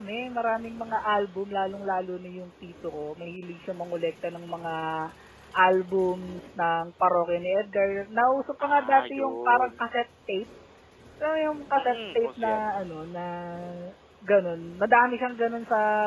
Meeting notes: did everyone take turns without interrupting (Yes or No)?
No